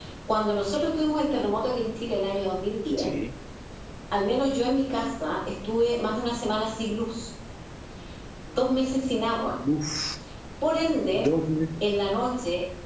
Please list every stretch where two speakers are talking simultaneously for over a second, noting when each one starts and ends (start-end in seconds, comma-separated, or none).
none